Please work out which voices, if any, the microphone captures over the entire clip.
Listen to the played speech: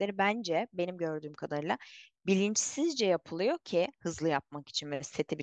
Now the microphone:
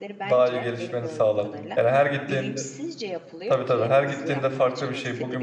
both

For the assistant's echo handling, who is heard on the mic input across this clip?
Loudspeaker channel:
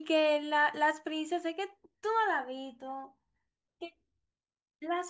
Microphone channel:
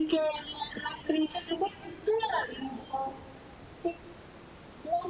echo only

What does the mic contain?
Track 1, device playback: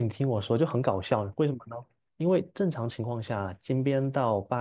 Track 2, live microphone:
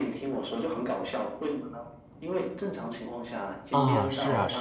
both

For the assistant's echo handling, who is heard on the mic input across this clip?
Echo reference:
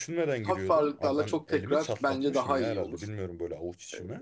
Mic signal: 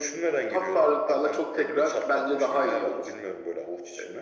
echo only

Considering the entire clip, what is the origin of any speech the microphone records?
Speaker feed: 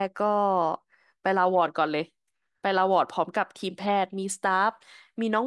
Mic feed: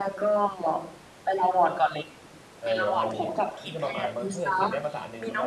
both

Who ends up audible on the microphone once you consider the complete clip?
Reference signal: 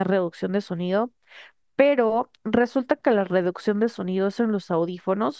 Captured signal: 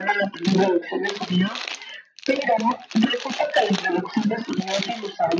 echo only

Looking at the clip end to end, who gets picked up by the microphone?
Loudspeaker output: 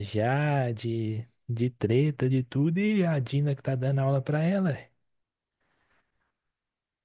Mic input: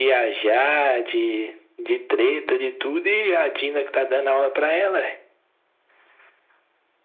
echo only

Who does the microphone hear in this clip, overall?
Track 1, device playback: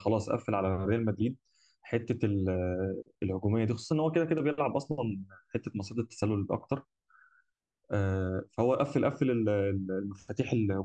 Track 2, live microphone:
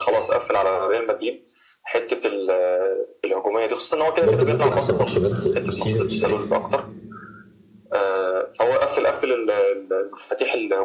both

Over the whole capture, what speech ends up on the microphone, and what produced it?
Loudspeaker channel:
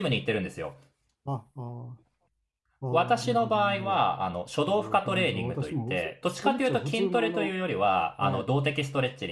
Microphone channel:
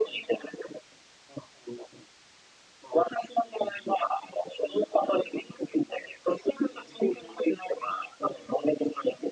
echo only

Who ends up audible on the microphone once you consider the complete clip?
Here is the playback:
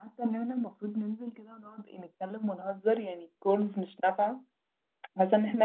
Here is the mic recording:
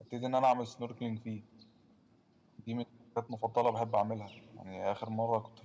user only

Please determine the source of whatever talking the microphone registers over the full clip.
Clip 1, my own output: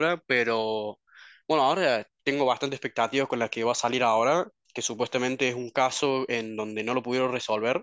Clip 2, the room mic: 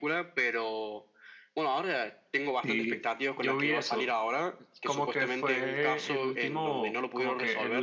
both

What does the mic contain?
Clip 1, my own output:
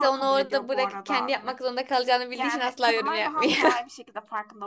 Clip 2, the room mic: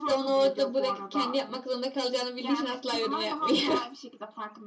echo only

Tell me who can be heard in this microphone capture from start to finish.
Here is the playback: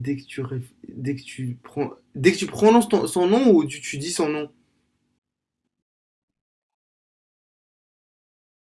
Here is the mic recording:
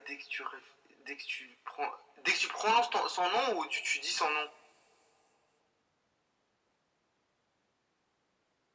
echo only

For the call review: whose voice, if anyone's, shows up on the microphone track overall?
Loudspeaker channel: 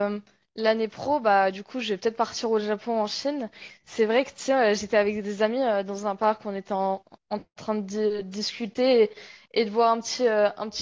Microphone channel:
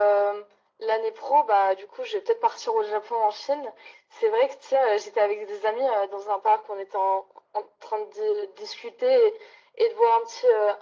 echo only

